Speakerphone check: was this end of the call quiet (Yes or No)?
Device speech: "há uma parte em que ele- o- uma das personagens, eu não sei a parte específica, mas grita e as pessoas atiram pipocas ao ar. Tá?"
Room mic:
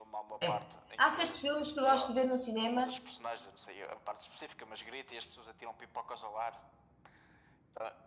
No